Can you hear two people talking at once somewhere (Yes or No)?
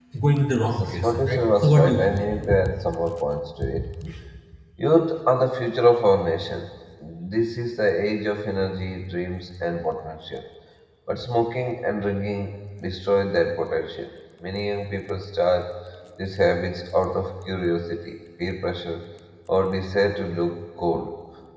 Yes